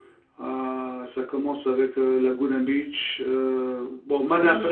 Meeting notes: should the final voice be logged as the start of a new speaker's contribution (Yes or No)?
Yes